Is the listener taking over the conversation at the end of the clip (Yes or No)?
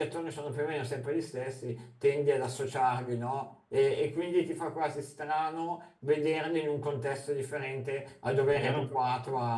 No